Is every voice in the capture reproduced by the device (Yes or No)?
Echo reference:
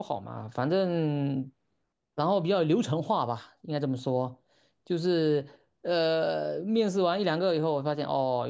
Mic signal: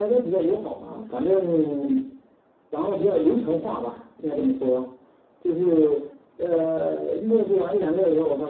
Yes